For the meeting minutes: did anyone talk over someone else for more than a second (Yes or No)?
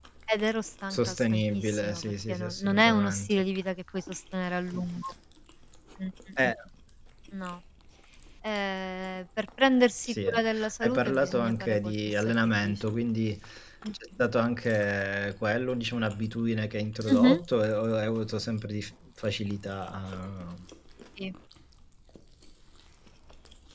Yes